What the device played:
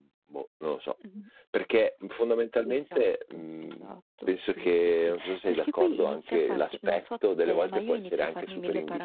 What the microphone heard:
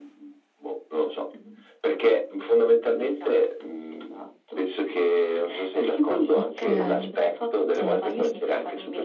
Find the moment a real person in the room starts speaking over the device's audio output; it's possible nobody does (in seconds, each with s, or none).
6.3 s